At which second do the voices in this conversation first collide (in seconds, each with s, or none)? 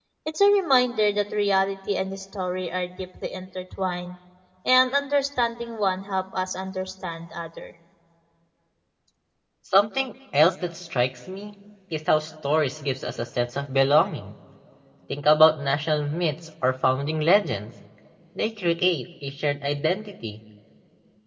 none